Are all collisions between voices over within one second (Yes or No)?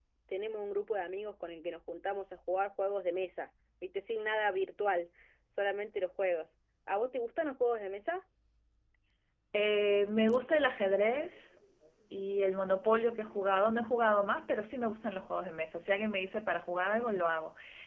Yes